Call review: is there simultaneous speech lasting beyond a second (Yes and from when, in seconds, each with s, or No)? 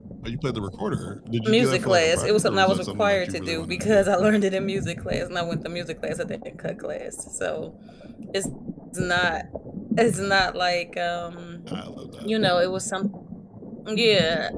Yes, from 1.4 s